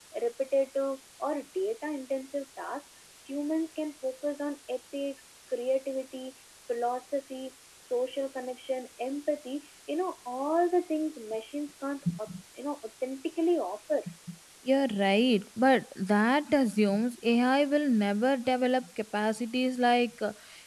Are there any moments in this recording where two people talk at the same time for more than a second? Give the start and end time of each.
none

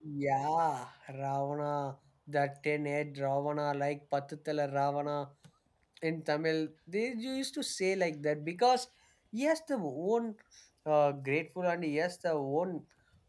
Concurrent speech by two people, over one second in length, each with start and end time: none

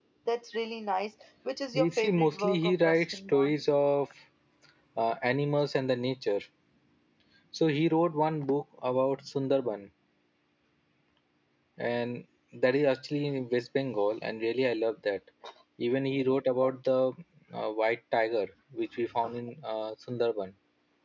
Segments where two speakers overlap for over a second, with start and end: 1.7-3.5

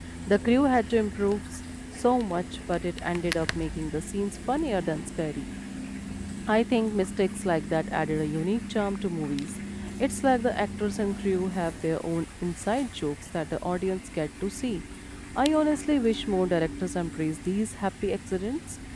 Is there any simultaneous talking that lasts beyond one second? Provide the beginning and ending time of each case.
none

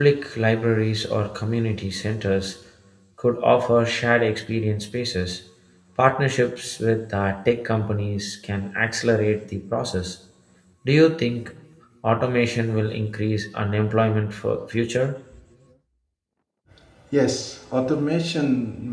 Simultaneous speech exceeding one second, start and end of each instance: none

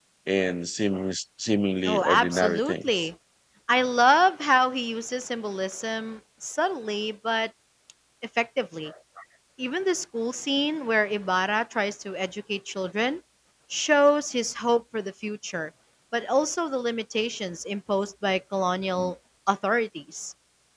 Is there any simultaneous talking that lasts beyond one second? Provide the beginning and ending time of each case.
1.9-3.1

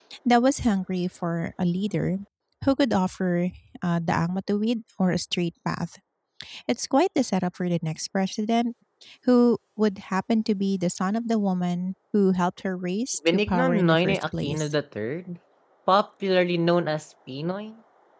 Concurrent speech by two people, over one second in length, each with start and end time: 13.3-14.7

